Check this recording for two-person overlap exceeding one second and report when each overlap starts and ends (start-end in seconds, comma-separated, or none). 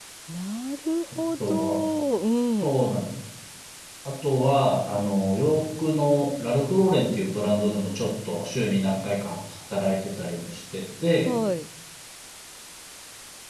none